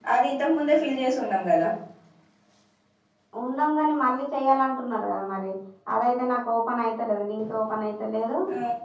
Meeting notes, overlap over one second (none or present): none